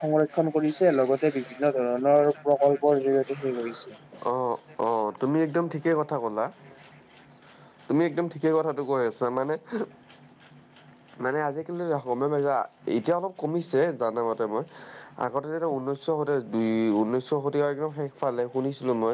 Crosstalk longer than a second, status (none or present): none